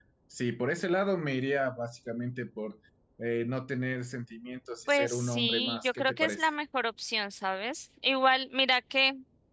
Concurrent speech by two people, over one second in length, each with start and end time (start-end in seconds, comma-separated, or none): 4.9-6.5